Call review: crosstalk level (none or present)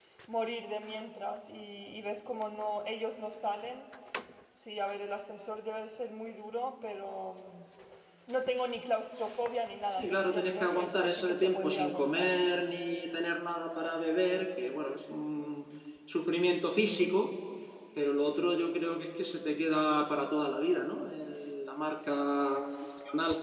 present